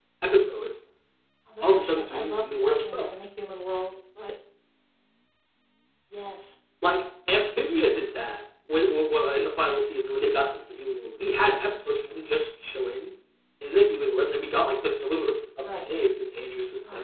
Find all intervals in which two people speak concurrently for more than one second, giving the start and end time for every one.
1.6-3.1

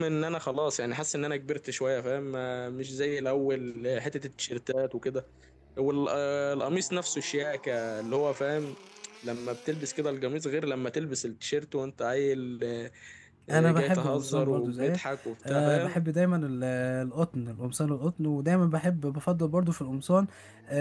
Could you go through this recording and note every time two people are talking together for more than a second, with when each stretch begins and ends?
13.5-15.0

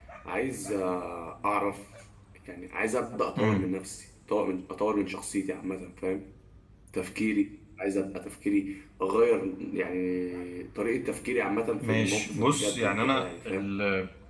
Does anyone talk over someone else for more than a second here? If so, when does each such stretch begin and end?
11.8-13.7

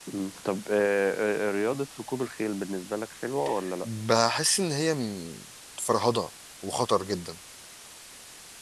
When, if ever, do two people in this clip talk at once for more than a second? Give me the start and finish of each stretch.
none

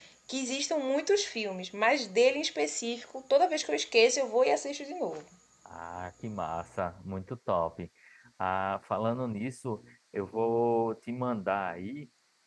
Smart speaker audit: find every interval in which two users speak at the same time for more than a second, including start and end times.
none

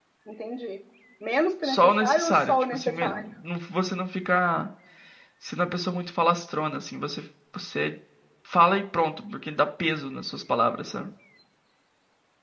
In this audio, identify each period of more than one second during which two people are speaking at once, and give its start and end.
1.6-3.2

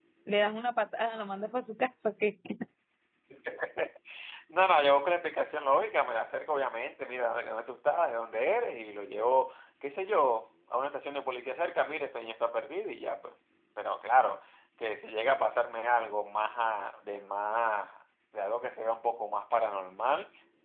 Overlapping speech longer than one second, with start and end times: none

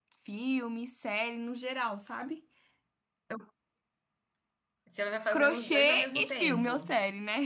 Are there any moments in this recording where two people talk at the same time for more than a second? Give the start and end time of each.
5.3-6.9

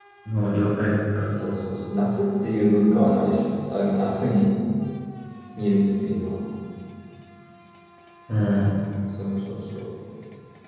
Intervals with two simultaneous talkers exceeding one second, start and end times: none

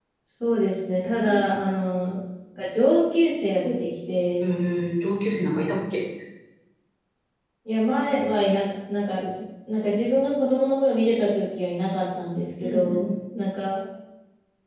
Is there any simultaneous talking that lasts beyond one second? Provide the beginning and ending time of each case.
none

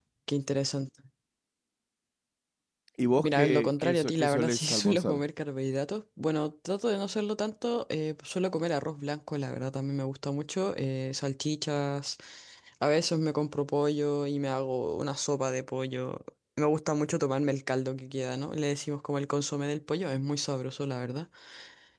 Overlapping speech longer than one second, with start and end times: 3.2-5.2

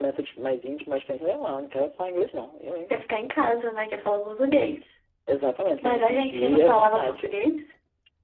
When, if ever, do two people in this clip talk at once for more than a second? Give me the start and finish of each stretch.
5.8-7.3

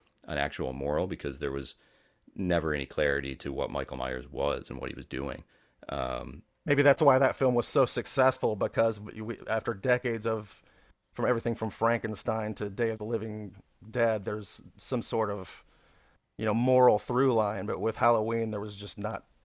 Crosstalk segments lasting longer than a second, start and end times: none

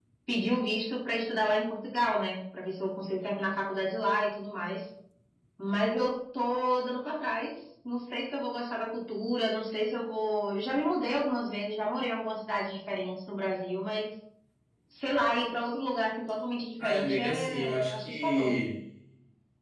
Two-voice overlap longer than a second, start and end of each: 16.8-18.6

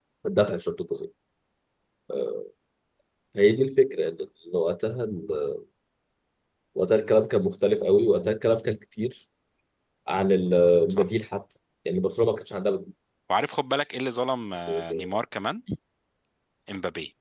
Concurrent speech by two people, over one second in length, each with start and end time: none

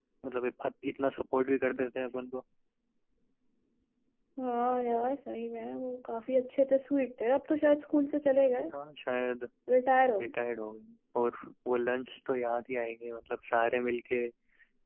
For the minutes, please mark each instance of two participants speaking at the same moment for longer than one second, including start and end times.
none

